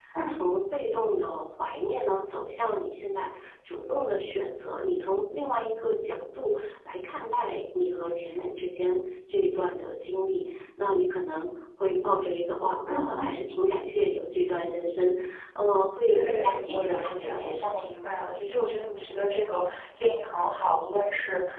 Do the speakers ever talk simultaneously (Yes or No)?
Yes